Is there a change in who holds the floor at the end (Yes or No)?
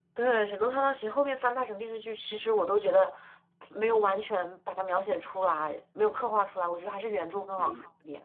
Yes